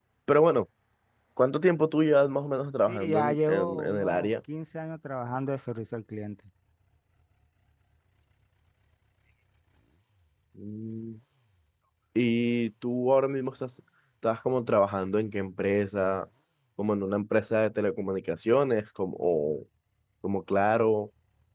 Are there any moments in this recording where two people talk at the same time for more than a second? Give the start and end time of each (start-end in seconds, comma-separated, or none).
2.9-4.3